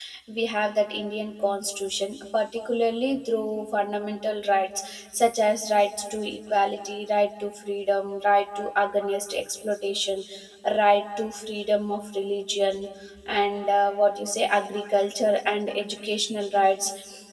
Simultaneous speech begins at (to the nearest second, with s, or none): none